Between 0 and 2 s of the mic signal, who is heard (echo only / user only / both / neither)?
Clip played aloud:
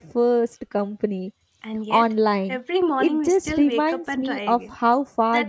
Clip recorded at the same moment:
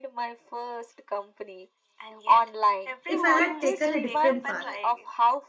echo only